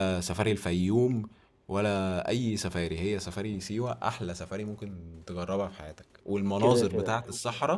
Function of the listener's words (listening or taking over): listening